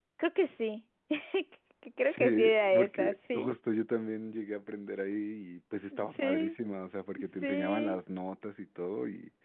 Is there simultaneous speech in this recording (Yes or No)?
Yes